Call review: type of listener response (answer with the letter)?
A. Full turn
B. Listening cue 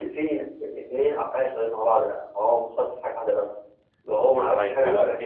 A